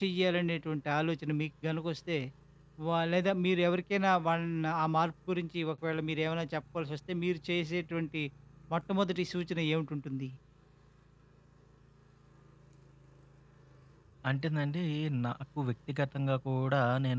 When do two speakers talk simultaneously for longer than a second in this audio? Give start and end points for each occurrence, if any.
none

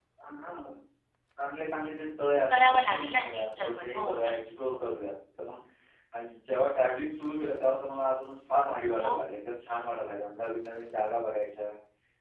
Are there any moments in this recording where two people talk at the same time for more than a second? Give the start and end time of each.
2.5-4.8

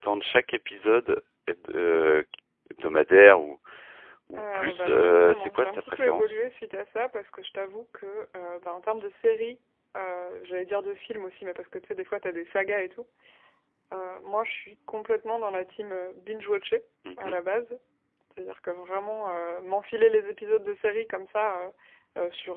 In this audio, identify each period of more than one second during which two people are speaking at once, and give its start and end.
4.4-6.4

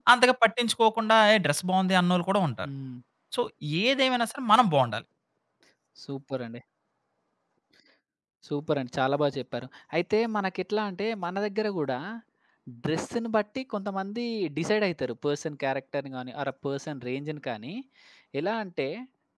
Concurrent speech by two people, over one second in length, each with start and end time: none

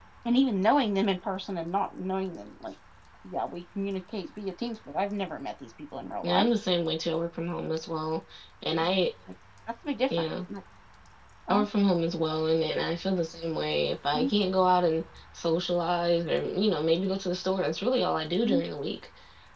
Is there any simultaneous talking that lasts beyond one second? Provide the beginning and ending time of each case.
none

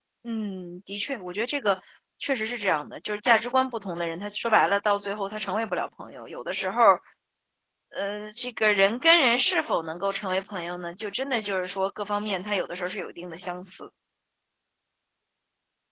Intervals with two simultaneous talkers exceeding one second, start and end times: none

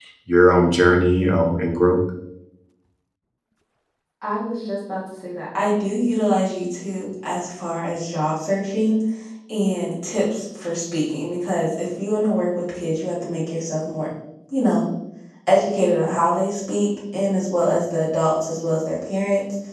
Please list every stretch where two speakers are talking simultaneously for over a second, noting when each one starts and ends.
none

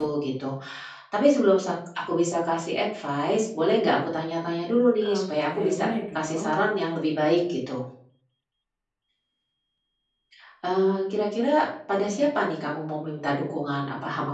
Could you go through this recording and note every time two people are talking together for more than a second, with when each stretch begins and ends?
5.1-6.5

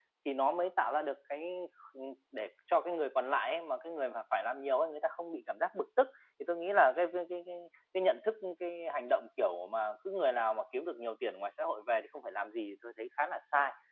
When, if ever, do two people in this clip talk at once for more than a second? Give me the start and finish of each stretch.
none

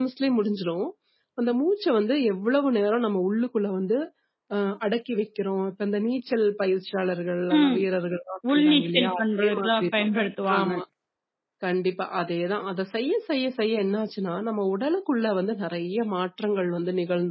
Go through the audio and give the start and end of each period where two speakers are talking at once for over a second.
8.5-9.8

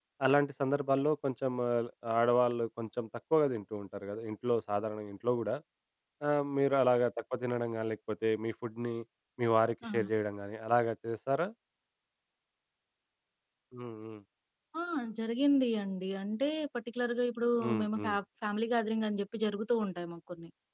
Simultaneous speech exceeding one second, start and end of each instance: none

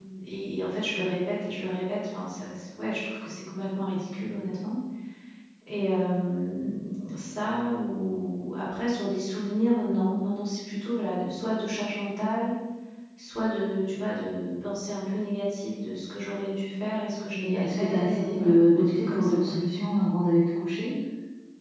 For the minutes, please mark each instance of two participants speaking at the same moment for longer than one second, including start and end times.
17.4-19.6

